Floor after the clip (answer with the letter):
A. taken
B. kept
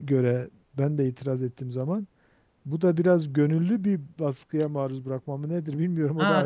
A